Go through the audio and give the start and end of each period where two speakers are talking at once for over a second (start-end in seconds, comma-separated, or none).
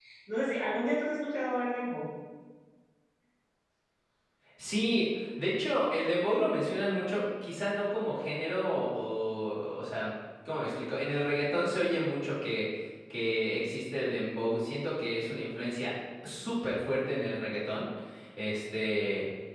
none